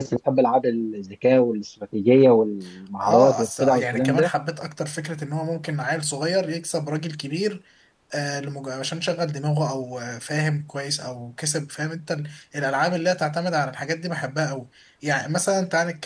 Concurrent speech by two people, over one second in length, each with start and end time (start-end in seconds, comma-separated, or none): 3.0-4.3